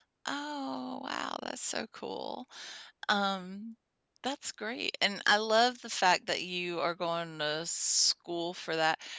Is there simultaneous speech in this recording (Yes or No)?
No